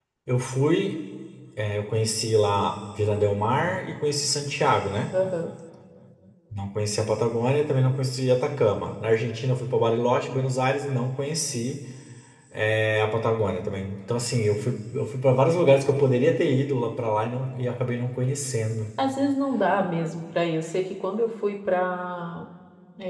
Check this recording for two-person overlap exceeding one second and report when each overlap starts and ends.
none

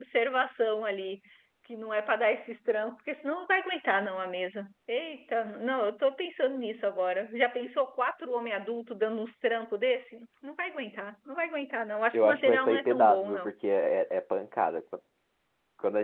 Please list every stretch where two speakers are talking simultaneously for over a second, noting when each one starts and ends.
12.1-13.5

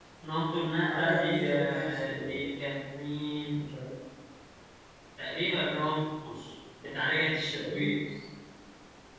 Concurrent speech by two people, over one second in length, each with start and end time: 0.9-2.4

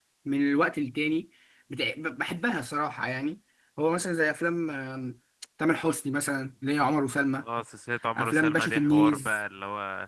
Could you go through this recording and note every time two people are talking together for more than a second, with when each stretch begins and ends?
8.2-9.4

